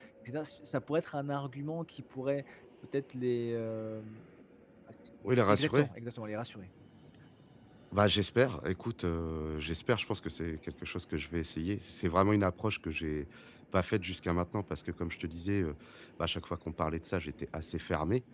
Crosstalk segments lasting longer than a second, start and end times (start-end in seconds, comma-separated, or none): none